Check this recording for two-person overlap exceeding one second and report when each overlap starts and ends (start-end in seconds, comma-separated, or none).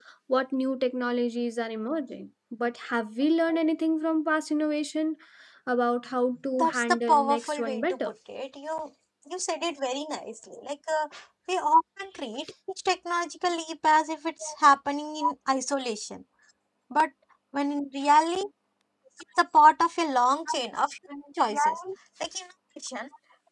6.5-8.0